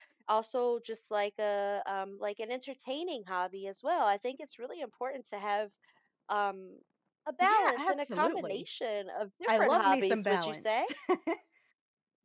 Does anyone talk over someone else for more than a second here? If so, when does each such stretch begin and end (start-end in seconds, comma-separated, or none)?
7.4-8.6, 9.5-10.8